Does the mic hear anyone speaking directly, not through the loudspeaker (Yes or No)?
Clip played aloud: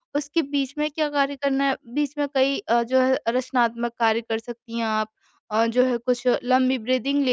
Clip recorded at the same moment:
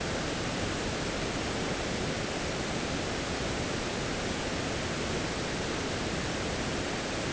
No